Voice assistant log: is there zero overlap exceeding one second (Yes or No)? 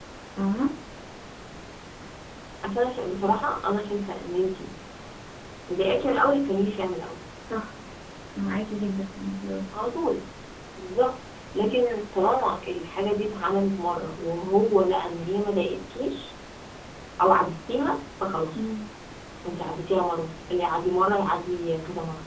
Yes